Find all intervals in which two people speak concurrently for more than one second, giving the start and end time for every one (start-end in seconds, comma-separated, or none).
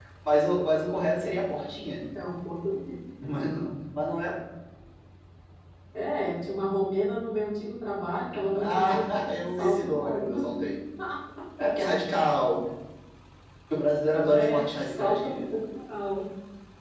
8.5-10.4, 14.3-15.6